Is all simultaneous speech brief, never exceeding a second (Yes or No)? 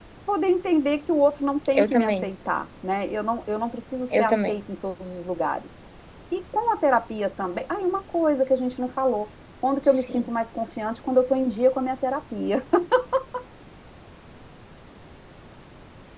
Yes